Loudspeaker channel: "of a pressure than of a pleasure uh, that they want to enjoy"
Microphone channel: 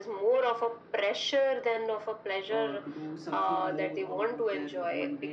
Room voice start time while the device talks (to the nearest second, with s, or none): 2 s